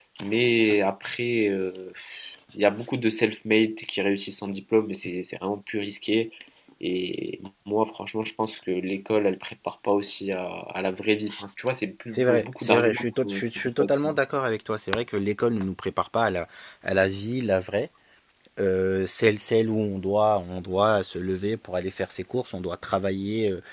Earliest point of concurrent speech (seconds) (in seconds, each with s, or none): 12.1 s